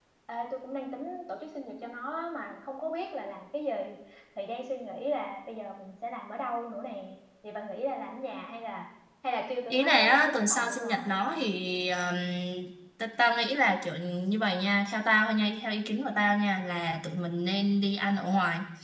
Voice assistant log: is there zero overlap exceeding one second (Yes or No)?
No